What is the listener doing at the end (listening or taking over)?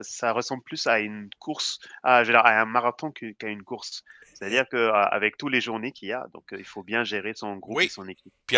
taking over